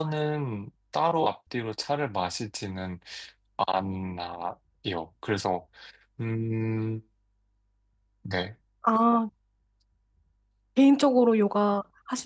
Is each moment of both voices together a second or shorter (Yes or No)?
Yes